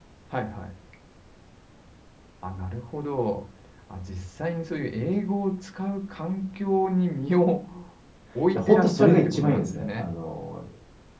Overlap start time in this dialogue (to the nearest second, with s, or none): 9 s